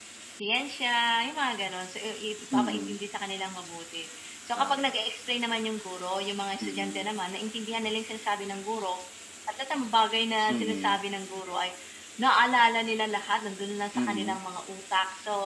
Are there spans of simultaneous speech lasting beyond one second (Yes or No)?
No